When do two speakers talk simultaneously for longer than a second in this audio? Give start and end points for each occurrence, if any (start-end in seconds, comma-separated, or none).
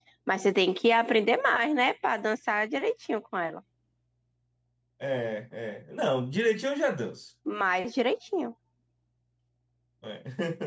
none